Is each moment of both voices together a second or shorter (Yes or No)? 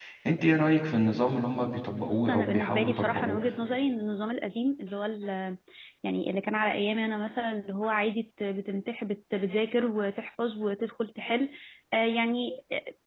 No